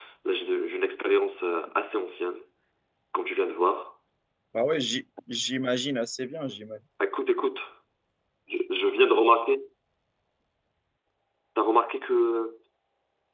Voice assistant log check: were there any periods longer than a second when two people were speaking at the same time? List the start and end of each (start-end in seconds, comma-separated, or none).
none